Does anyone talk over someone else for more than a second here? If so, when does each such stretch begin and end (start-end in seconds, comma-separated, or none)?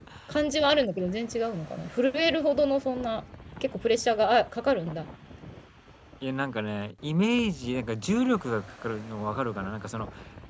none